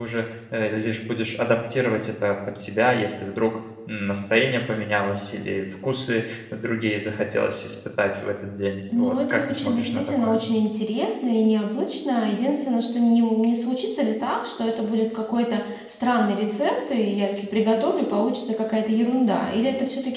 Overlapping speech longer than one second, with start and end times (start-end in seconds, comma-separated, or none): 9.0-10.4